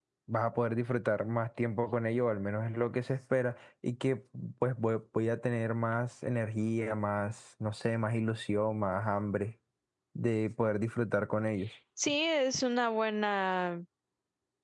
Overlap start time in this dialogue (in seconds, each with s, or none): none